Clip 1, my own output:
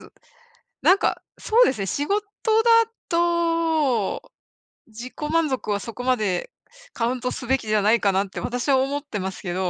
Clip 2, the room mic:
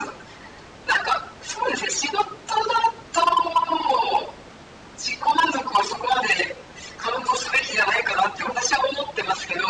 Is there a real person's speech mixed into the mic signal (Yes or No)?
No